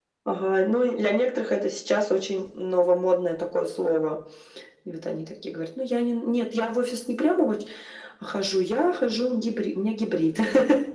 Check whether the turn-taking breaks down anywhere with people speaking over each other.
No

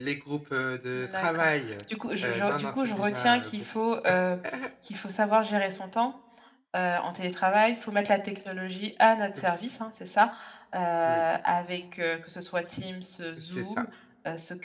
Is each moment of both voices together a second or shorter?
No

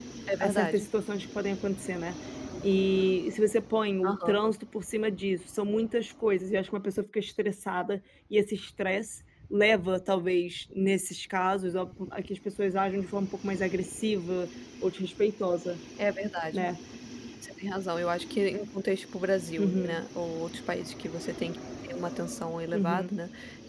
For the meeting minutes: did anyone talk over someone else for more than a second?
No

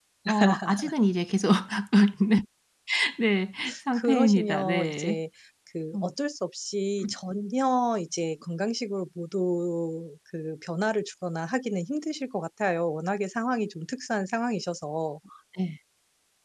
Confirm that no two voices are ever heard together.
No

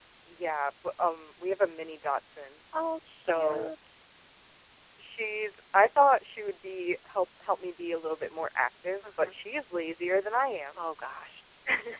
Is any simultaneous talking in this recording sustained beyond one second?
No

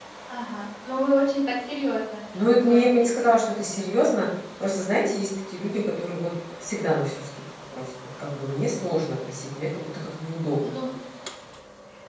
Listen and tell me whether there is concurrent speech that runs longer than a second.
Yes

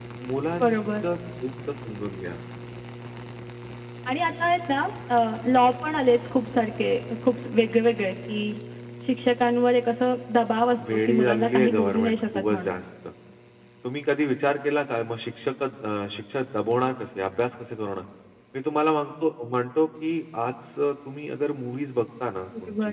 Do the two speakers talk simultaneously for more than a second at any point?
Yes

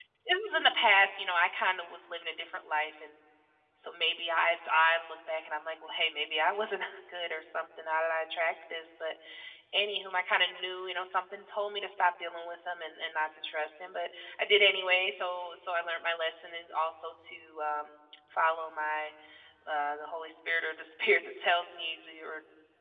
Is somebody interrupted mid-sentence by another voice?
No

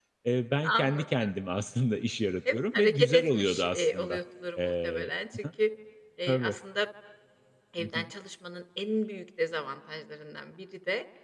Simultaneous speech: Yes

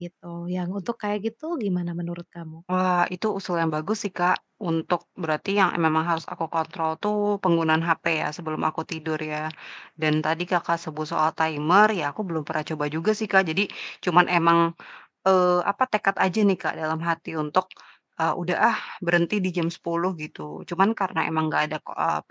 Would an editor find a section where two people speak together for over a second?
No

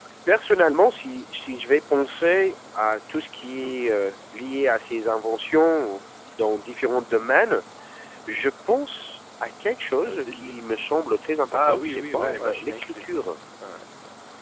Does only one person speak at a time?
No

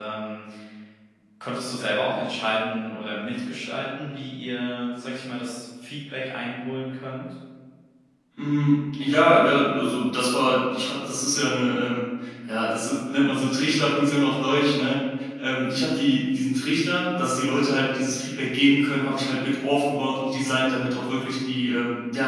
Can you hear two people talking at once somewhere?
No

